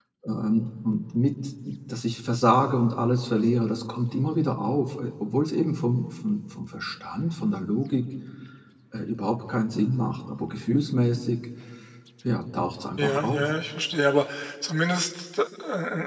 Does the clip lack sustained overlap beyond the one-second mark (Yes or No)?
Yes